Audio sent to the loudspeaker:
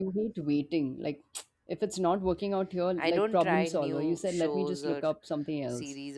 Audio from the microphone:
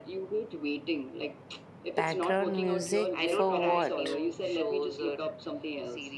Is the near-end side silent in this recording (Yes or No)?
No